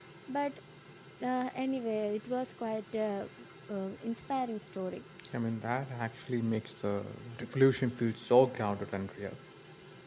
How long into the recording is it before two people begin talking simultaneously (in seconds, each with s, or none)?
none